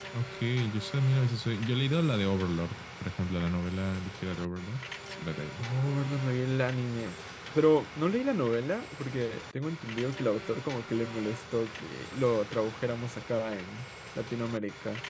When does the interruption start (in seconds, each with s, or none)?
none